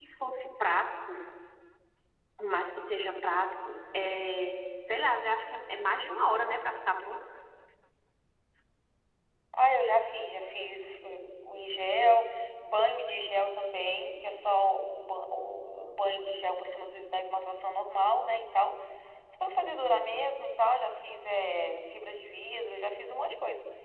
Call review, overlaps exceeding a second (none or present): none